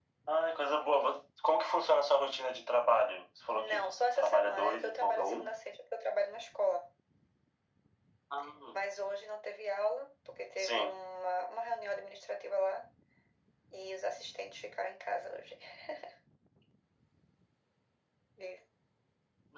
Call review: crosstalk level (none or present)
present